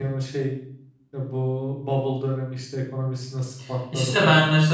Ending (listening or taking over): taking over